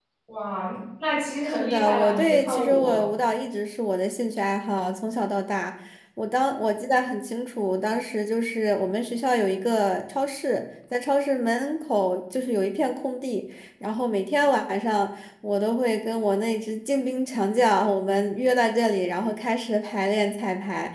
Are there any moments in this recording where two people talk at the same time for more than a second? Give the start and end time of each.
1.5-2.8

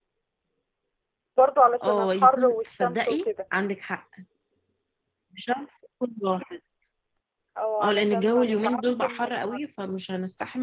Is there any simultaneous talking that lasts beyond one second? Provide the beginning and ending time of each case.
1.8-3.3, 7.8-9.6

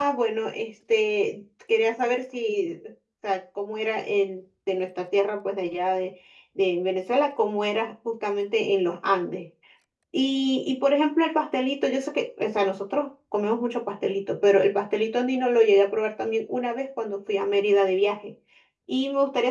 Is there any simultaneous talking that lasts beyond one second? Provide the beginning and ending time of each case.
none

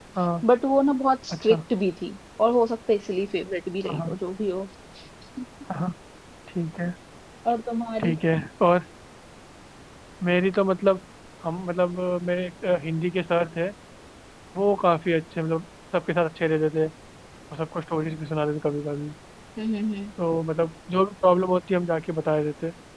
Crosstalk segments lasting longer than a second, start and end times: none

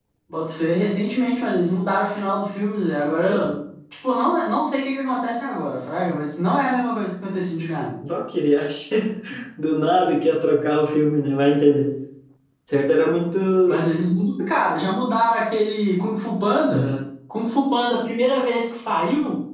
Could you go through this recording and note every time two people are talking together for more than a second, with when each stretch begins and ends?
none

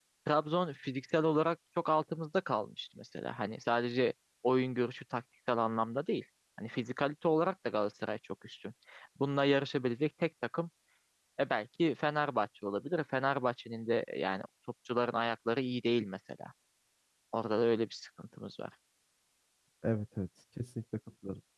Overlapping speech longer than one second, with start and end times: none

